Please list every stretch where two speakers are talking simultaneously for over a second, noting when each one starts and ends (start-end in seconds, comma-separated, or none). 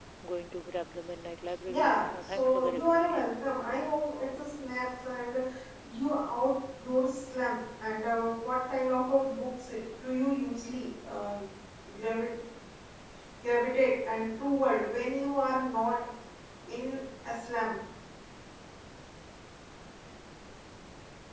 1.7-3.4